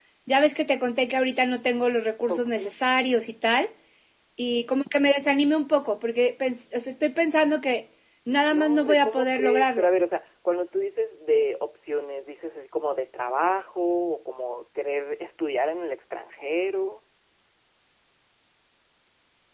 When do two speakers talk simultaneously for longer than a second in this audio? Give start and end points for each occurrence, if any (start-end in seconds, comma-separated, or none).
8.5-9.9